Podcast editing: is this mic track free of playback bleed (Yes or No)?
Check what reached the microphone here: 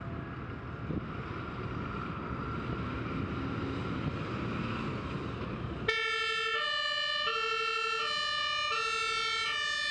Yes